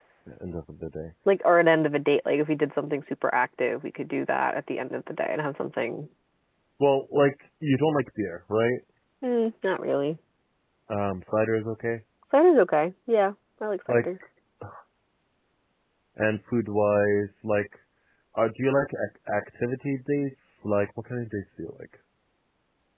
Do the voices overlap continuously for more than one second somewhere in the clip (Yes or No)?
No